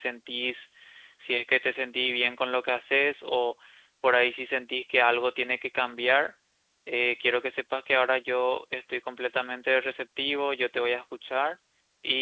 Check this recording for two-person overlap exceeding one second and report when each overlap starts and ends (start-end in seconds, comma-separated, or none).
none